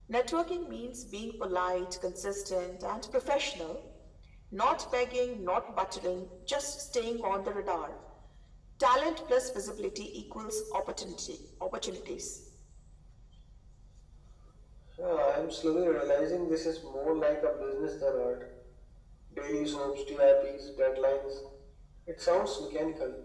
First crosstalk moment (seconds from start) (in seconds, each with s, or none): none